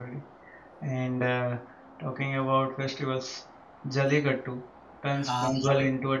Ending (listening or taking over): listening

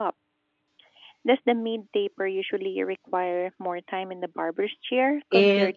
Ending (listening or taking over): taking over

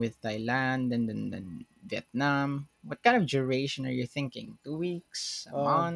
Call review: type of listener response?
taking over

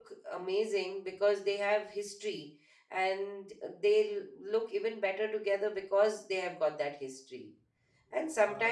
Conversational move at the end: listening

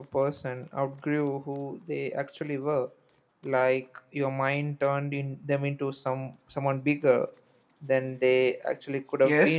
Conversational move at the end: taking over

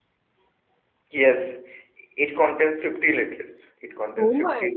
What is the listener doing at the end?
taking over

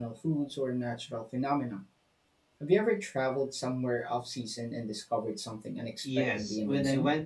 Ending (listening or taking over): taking over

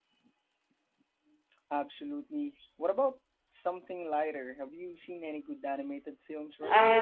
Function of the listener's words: taking over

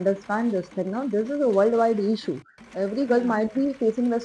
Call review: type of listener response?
listening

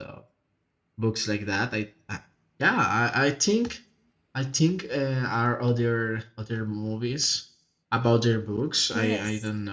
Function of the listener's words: taking over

